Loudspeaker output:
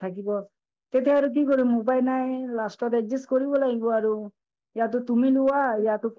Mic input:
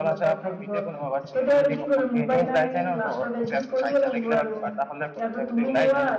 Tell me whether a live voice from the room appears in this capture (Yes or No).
Yes